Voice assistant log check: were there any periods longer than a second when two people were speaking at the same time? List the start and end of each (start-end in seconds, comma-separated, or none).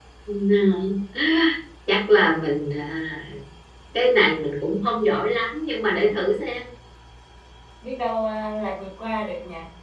none